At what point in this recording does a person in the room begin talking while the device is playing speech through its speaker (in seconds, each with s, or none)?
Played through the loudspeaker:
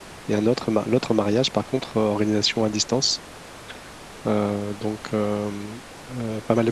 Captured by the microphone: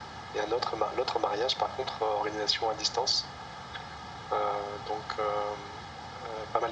none